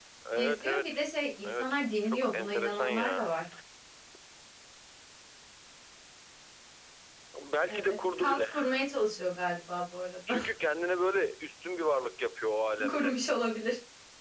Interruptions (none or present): present